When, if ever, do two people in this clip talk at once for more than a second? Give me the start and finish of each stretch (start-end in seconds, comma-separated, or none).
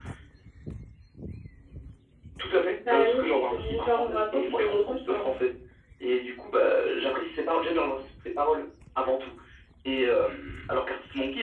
2.9-5.3